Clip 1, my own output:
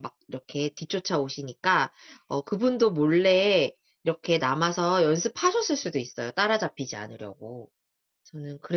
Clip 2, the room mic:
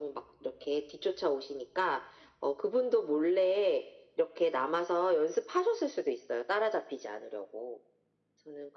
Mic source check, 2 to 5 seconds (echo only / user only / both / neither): echo only